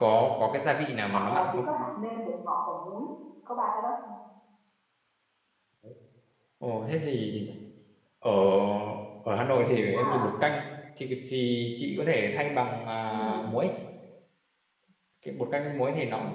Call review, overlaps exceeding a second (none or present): none